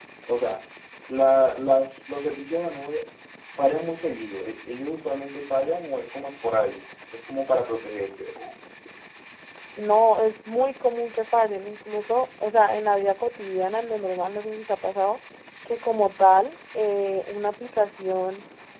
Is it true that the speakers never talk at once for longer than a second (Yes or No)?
Yes